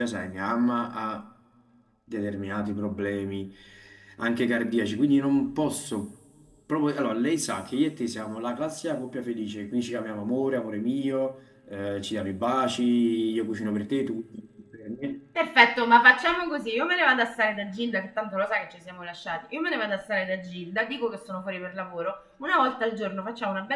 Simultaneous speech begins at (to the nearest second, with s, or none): none